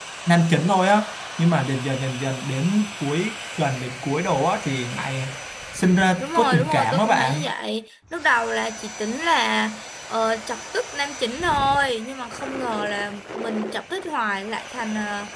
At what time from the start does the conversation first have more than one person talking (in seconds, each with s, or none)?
6.2 s